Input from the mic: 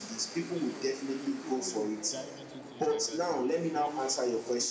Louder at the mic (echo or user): echo